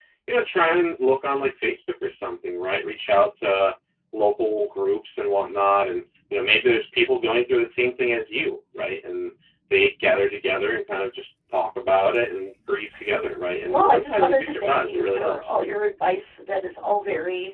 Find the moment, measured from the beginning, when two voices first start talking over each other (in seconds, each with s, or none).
13.6 s